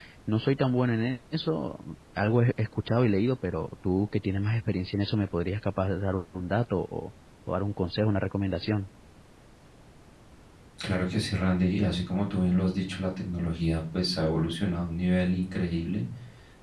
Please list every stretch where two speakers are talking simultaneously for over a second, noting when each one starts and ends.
none

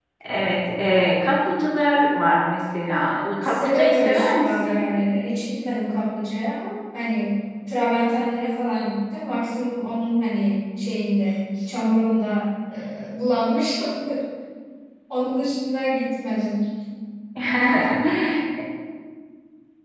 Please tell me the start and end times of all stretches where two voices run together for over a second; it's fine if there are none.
3.4-4.9

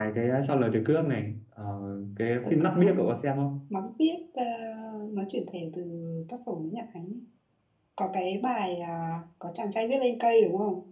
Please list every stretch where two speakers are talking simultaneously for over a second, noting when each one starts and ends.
none

